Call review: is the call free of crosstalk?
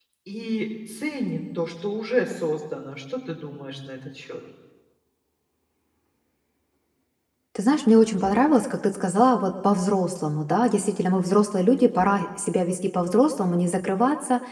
Yes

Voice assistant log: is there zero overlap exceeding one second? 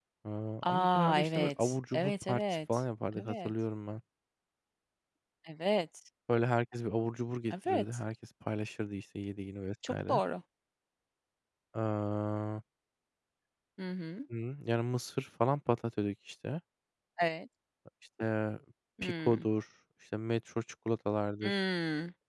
No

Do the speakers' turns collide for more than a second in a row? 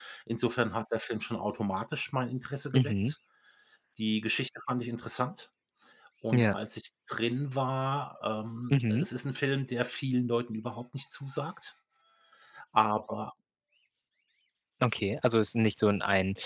No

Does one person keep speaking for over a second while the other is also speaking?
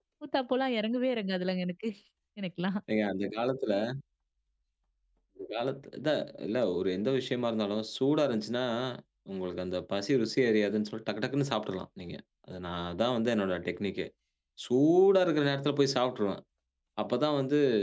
No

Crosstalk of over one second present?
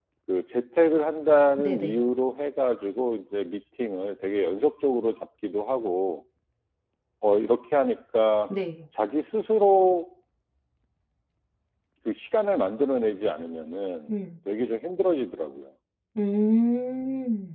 No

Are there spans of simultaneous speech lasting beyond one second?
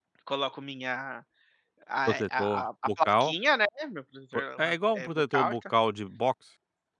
Yes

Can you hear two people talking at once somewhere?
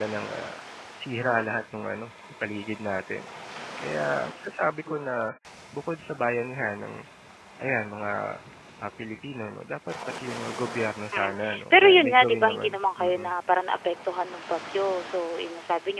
Yes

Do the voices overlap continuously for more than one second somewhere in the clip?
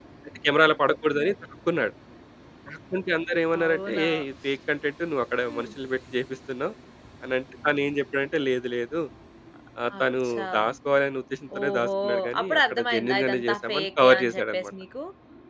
Yes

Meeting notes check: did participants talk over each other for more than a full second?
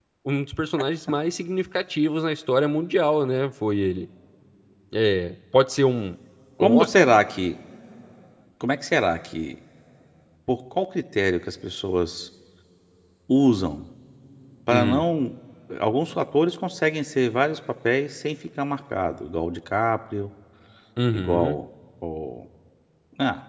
No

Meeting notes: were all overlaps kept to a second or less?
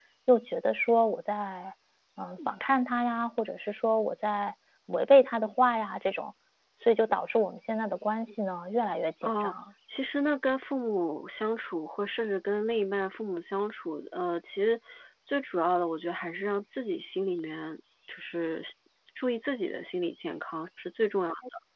Yes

